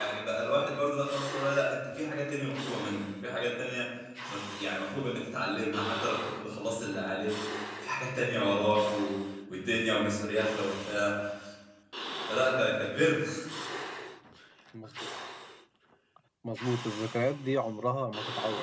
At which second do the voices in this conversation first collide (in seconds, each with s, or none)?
none